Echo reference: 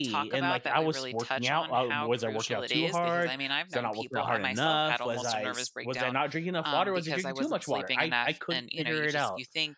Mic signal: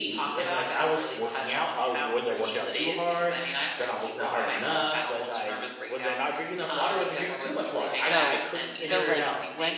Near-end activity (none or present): present